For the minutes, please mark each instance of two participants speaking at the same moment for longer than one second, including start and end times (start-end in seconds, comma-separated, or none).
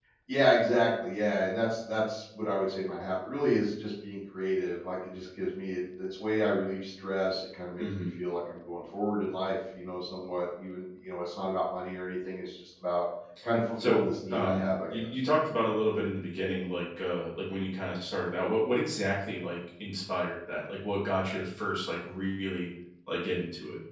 13.8-15.1